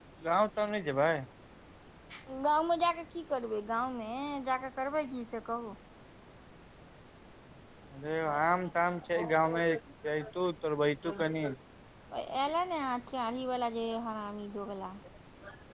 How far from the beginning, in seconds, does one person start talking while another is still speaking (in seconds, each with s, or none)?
none